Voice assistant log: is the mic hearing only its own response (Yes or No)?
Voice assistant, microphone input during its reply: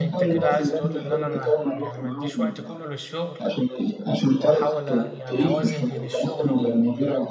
No